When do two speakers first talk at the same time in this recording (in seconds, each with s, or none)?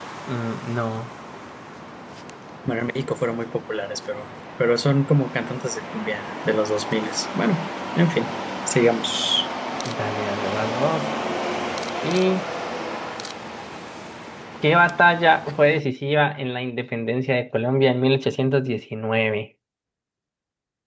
none